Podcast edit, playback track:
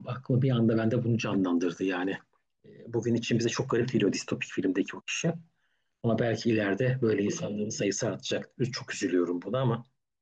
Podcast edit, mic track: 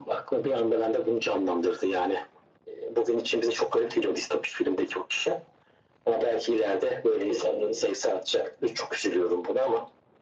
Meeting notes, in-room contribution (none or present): none